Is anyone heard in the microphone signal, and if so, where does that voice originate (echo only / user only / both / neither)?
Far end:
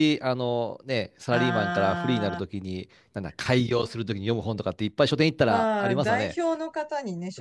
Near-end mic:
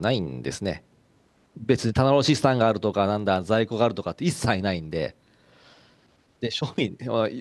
user only